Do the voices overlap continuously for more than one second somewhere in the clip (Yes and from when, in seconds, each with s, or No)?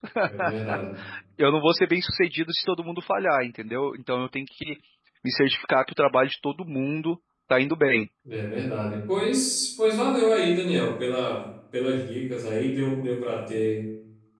No